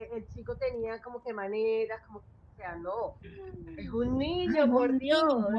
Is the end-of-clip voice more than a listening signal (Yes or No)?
Yes